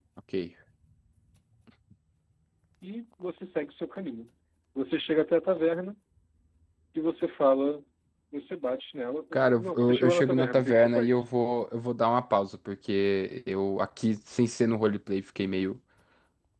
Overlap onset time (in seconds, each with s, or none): 9.3 s